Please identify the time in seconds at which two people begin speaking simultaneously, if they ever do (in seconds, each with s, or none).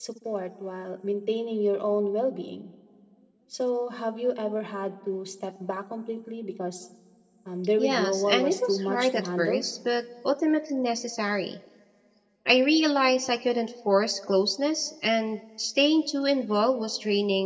7.8 s